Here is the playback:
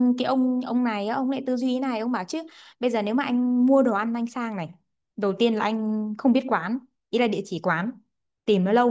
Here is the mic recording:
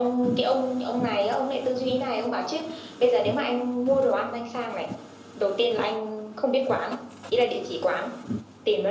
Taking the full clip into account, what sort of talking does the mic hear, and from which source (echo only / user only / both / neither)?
echo only